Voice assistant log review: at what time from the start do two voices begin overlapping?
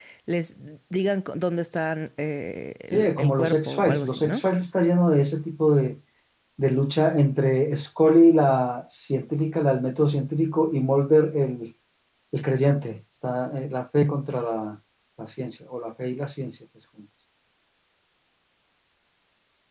2.9 s

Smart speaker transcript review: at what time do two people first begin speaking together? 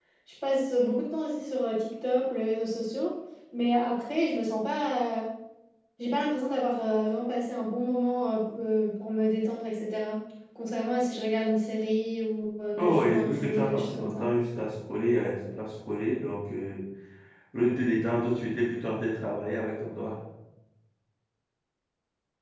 12.8 s

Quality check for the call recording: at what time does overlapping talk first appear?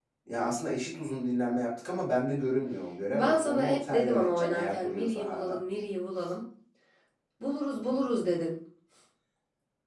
3.1 s

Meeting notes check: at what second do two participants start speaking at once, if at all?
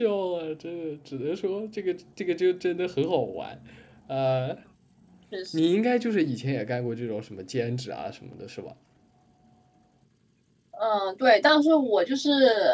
none

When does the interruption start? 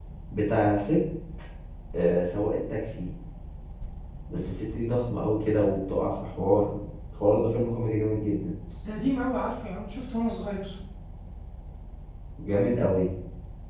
none

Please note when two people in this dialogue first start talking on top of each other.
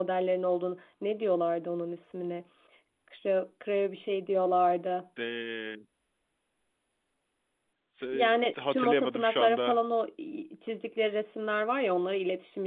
8.1 s

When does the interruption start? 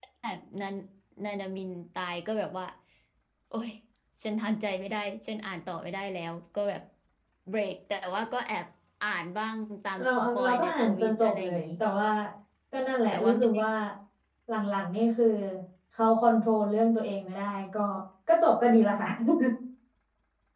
10.0 s

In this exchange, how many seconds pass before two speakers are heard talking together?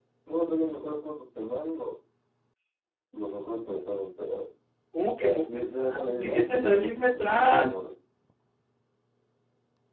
5.2 s

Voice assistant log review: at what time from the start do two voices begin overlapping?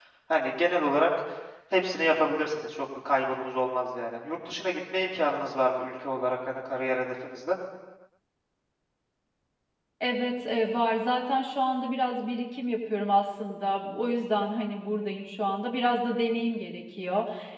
none

